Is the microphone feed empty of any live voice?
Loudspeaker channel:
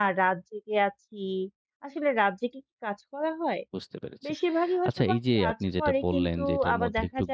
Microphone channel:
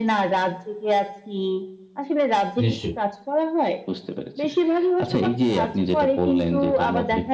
No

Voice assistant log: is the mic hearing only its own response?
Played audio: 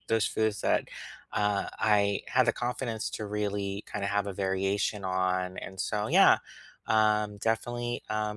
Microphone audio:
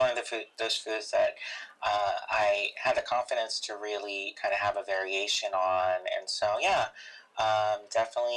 Yes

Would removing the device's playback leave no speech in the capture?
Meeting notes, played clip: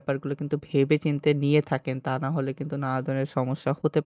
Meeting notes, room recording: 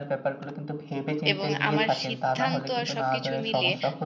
No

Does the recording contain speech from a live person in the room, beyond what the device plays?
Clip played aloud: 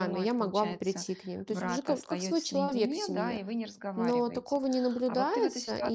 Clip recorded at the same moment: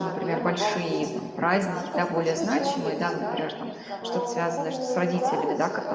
Yes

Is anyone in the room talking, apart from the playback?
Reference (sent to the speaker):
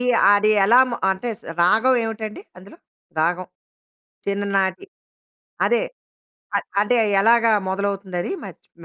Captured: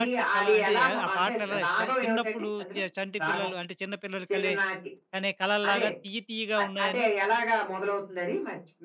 Yes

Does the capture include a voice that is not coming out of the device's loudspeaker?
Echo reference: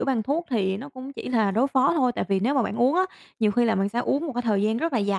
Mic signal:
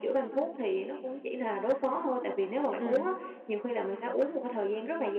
Yes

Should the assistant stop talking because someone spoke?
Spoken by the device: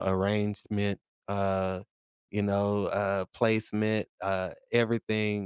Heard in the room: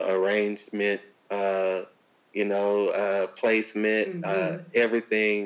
Yes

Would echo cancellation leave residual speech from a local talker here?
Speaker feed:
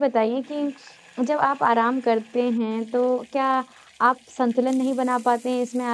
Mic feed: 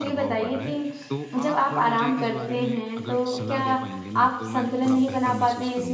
Yes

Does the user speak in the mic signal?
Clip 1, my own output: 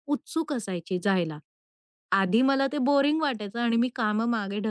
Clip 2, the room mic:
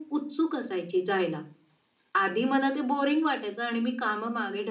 No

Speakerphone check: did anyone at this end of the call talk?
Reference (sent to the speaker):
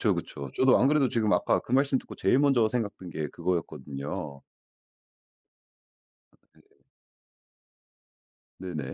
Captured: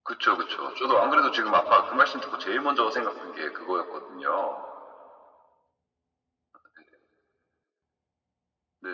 No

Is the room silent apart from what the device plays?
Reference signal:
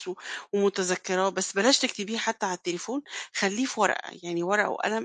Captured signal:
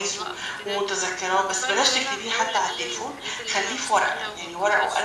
No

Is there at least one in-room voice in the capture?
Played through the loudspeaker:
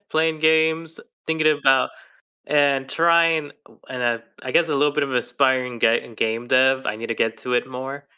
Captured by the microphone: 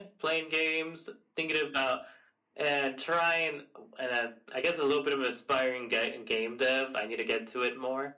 No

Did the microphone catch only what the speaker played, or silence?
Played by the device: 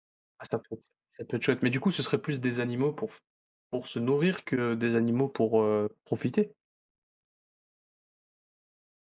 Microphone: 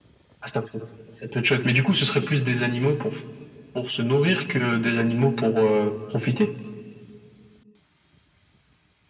Yes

